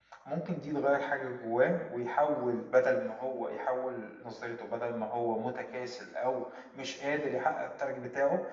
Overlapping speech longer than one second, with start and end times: none

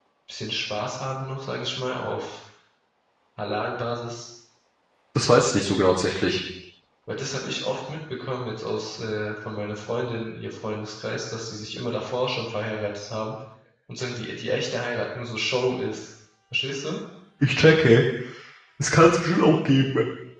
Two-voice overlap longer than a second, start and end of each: none

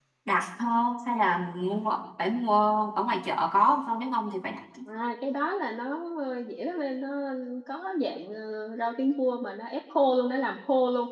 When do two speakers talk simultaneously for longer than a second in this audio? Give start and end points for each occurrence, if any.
none

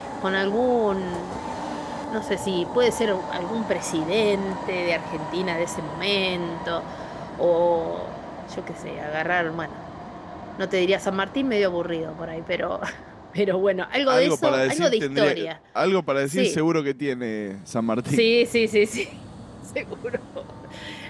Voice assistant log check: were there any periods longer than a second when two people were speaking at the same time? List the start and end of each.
14.1-15.4

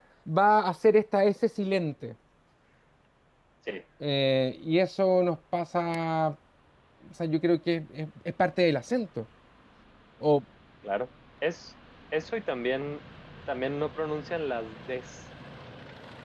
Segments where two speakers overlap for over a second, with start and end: none

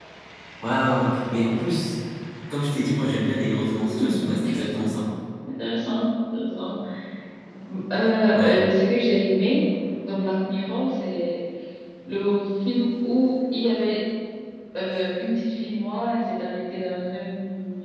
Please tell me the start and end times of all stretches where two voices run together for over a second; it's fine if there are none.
3.8-5.0

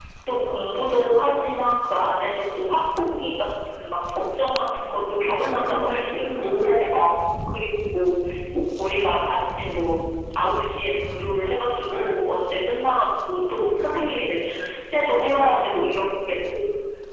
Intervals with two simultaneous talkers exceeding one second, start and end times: 5.4-6.7

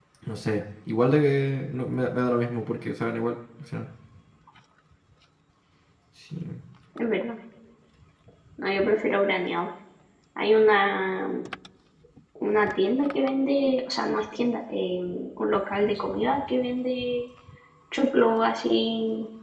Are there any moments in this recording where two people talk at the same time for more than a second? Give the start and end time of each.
none

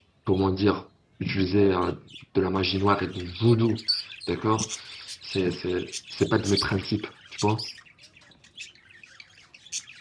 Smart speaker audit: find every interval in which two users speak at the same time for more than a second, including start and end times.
none

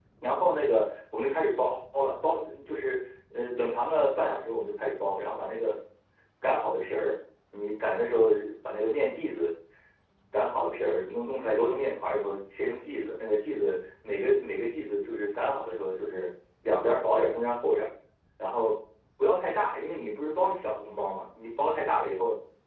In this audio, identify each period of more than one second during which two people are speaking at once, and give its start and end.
none

